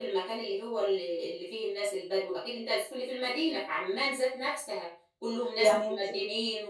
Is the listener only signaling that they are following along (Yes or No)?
Yes